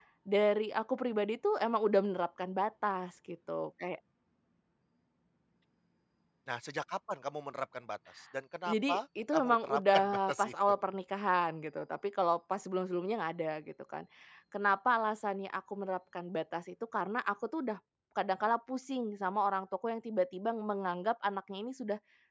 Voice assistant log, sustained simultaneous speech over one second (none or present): present